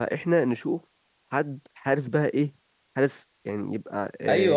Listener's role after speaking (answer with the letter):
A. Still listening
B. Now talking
B